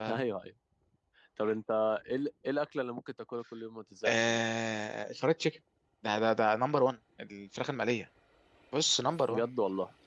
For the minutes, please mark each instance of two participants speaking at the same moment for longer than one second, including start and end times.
none

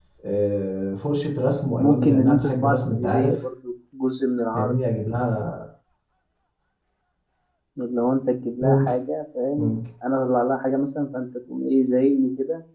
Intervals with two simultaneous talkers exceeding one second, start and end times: 1.8-3.4

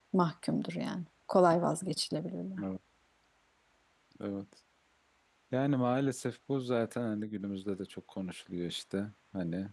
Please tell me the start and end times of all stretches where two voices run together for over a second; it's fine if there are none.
none

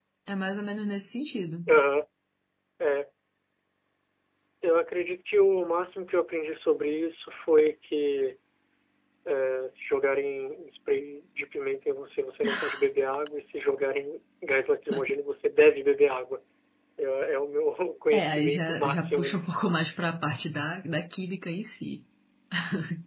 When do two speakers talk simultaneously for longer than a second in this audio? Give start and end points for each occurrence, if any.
18.1-19.6

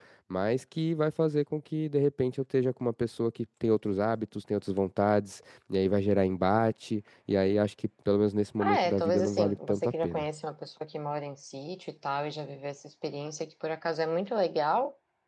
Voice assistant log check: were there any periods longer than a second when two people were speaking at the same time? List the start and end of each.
8.6-10.3

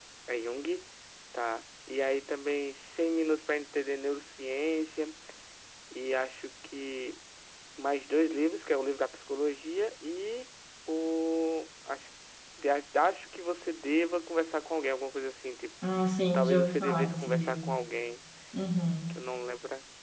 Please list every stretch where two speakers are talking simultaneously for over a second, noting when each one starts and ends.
16.3-17.8

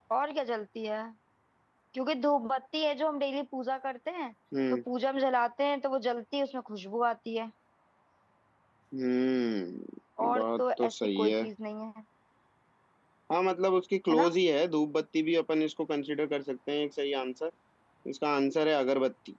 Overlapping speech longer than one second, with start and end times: 10.2-11.4

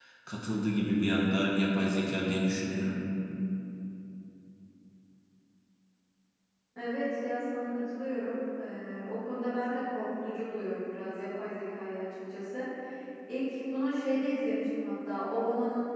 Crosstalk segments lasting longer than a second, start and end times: none

